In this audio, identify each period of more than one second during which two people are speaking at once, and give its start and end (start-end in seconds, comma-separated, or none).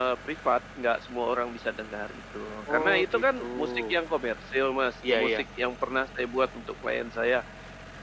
2.7-4.0